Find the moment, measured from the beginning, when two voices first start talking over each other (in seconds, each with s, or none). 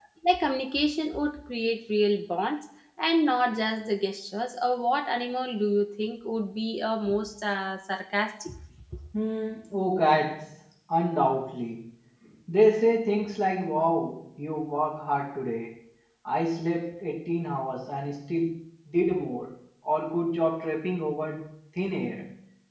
none